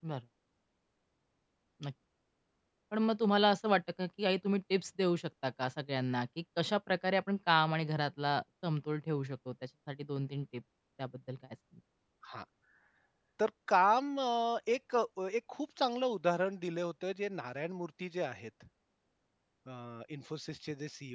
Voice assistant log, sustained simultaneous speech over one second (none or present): none